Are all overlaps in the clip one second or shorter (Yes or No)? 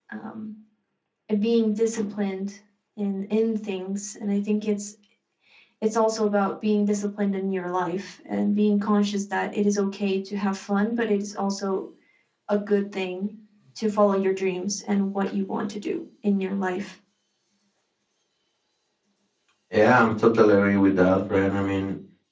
Yes